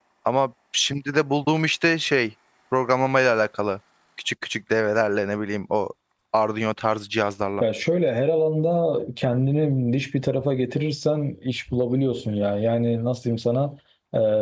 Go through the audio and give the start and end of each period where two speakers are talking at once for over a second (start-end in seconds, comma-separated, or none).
none